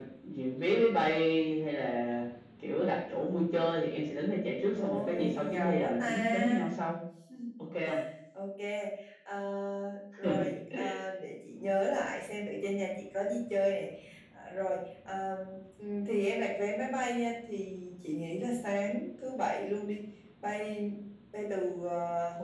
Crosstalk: present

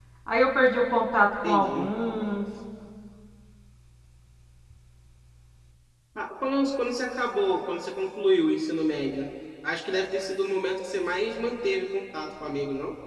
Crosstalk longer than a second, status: none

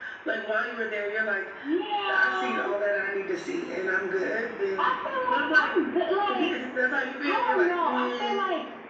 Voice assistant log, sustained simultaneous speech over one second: present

